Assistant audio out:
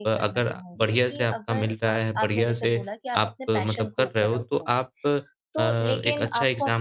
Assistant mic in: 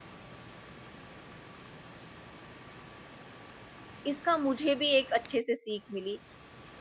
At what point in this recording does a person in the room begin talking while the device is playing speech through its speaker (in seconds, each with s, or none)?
4.1 s